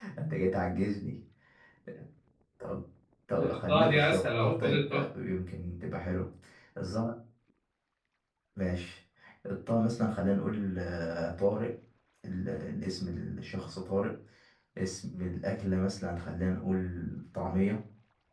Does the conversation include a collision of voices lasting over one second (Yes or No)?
Yes